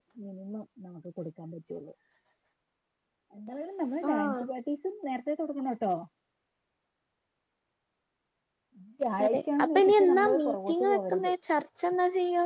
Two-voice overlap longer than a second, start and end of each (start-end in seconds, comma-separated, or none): 9.2-11.3